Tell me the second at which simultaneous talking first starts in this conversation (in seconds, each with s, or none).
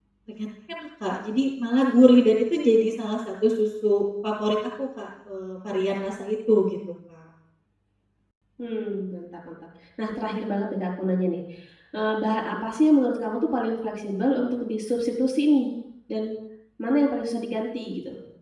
none